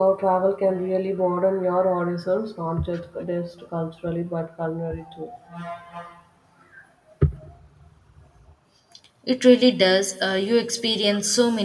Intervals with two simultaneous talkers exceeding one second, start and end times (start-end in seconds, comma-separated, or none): none